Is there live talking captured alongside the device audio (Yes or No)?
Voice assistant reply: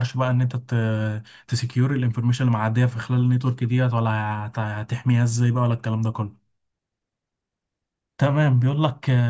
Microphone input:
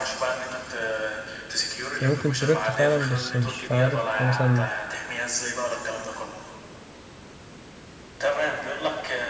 Yes